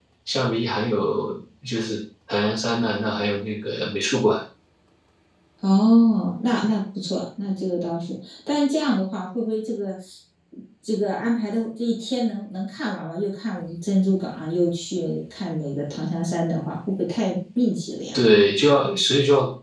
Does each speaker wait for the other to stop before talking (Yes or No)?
Yes